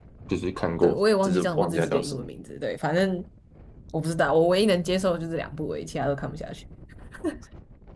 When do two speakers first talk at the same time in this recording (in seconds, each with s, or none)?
0.8 s